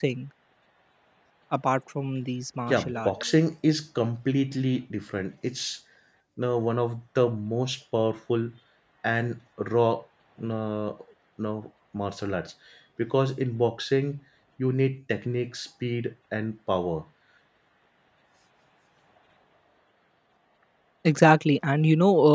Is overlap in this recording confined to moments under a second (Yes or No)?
Yes